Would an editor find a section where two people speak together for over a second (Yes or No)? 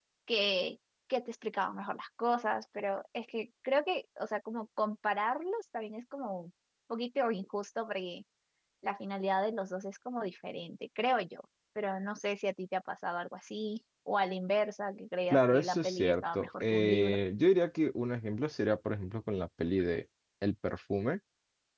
Yes